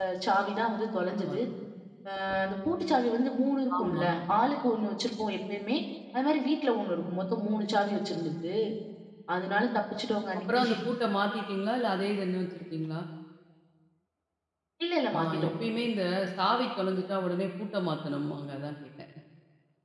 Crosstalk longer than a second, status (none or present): none